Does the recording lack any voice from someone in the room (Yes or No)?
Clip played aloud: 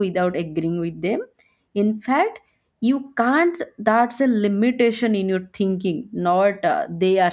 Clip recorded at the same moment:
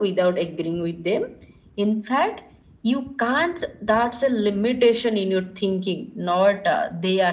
Yes